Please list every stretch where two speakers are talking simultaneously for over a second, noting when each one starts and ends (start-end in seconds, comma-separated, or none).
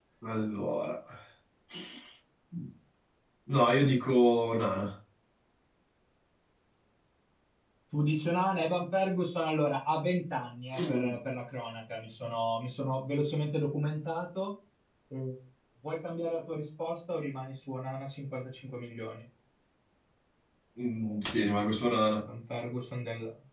none